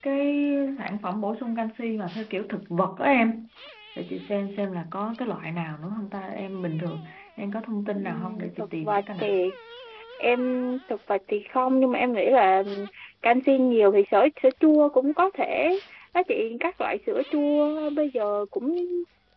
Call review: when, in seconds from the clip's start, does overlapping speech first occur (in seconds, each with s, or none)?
8.0 s